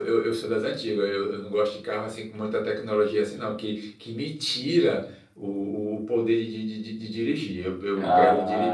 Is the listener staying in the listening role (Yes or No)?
No